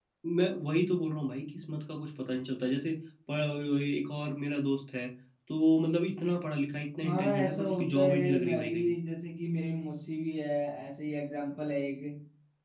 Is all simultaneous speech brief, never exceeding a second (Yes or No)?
No